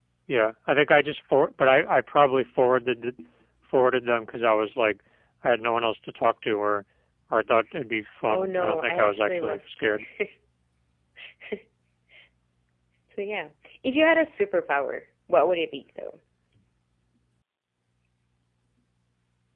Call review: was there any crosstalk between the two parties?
Yes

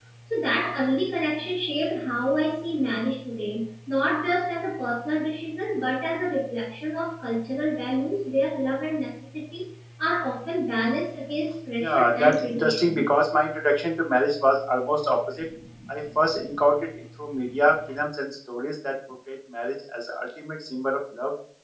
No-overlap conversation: No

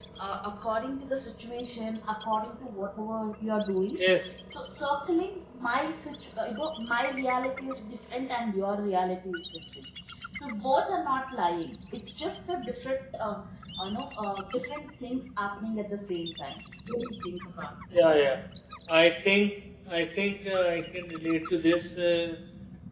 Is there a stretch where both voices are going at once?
No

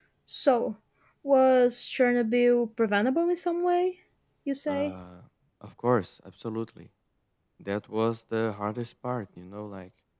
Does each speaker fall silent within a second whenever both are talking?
Yes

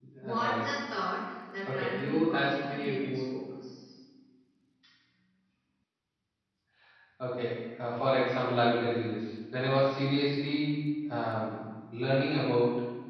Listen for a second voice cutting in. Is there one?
Yes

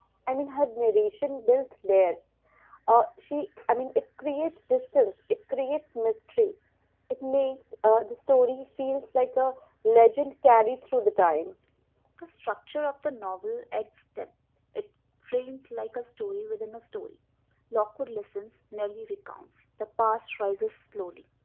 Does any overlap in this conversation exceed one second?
No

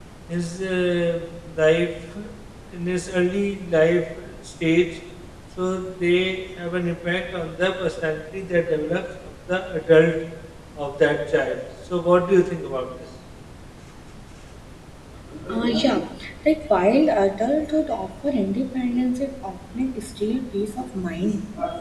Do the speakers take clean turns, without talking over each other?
Yes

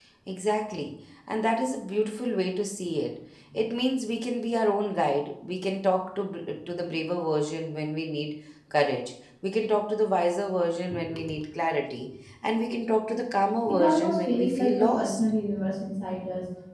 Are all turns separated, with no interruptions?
No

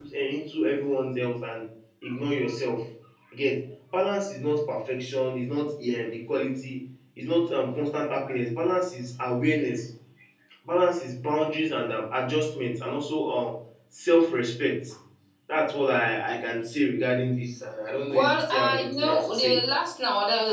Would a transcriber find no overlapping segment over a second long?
No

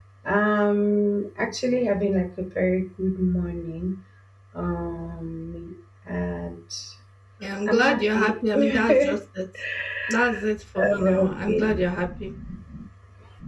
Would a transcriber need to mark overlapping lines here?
Yes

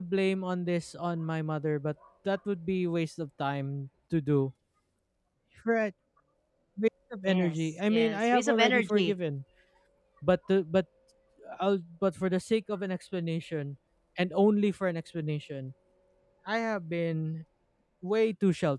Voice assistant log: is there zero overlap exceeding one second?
No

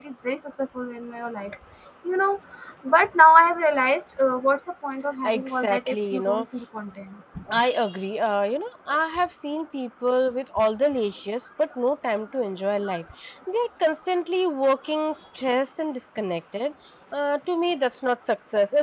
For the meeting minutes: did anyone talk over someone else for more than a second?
Yes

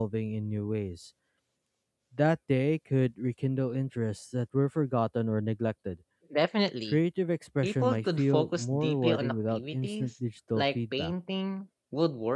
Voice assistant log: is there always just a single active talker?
No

